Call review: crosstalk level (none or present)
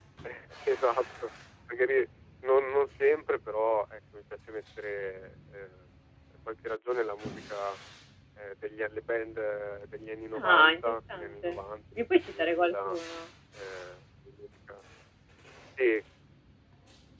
present